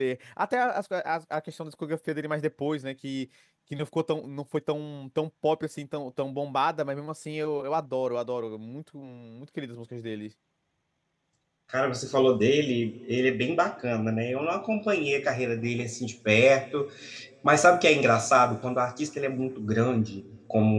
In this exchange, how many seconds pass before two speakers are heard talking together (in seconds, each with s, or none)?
none